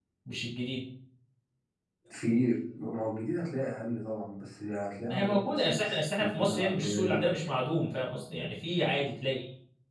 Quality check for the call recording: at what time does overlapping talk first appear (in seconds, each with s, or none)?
5.1 s